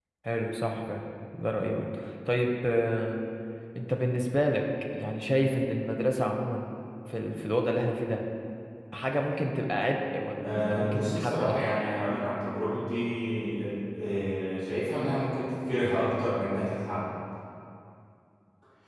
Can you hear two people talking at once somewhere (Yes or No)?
Yes